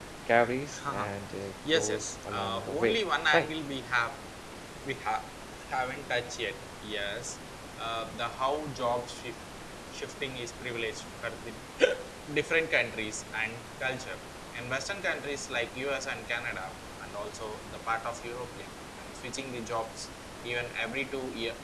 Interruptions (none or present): present